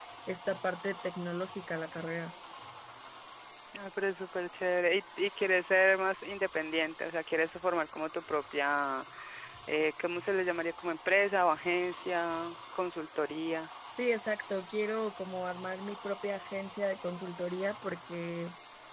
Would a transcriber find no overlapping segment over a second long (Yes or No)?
Yes